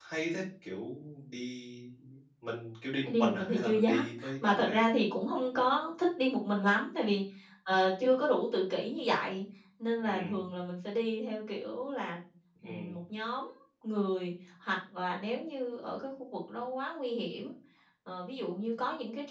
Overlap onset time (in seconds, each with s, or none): 3.0 s